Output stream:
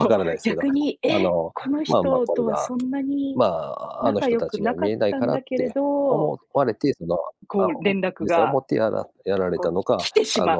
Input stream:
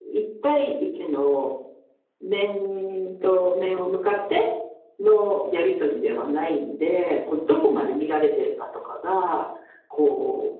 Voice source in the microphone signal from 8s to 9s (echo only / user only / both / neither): user only